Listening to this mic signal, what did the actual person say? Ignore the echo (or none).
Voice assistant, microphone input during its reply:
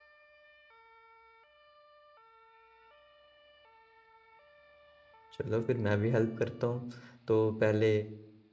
चलो फिर मैं भी हेल्प करता हूँ तो पहले